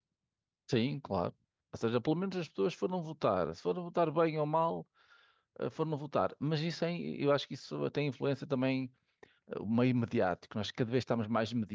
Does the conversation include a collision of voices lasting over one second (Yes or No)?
No